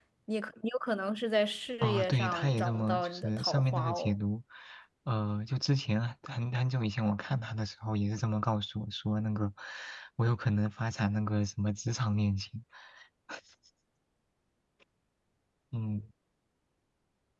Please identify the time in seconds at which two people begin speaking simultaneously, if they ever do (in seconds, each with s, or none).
1.8 s